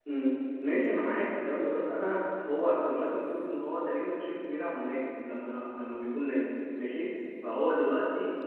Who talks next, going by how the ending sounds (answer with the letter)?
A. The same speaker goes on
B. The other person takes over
A